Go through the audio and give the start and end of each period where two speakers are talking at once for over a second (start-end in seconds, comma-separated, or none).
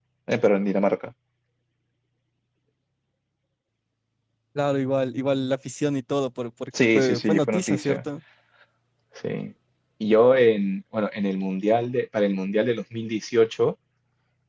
6.8-8.0